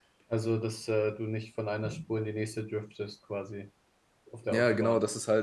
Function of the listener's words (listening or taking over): taking over